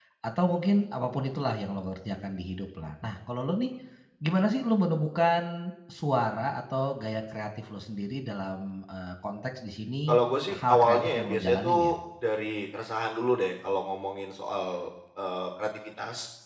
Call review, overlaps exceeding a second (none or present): present